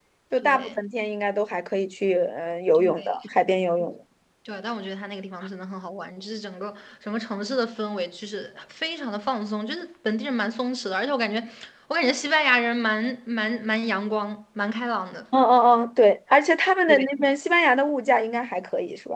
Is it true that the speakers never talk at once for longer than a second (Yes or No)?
Yes